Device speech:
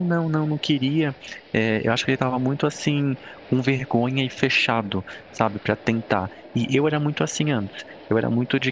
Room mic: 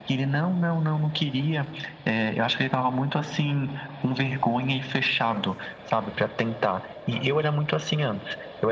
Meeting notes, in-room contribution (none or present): none